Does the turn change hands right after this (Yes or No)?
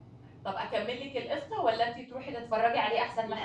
Yes